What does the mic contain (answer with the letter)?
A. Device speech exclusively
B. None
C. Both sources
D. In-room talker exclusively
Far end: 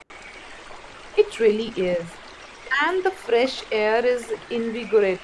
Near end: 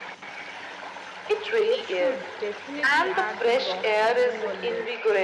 C